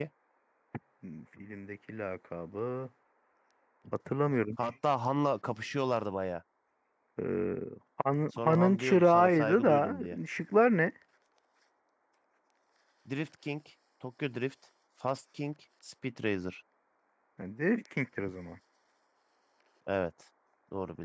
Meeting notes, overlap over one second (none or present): present